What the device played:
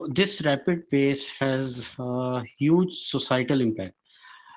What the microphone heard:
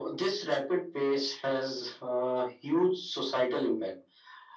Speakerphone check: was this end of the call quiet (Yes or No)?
Yes